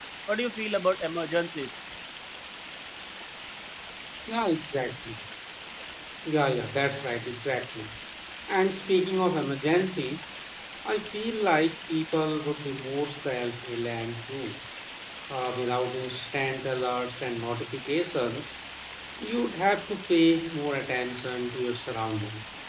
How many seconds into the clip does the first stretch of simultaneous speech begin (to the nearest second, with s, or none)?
none